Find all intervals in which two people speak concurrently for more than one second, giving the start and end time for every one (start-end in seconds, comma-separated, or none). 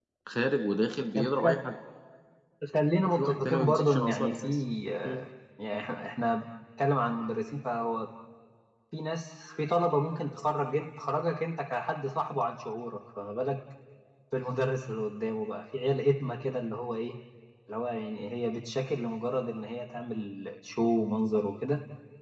3.2-4.5